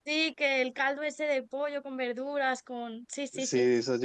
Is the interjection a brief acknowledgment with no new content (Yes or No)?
No